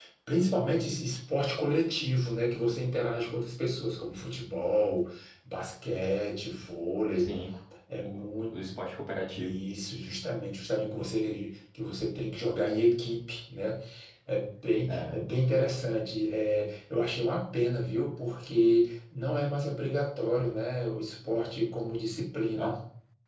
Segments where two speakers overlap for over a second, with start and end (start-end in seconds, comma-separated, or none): none